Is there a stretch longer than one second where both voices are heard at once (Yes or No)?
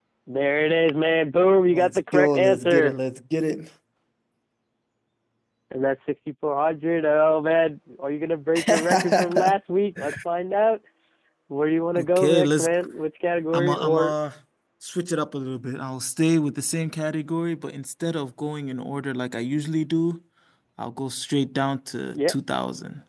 Yes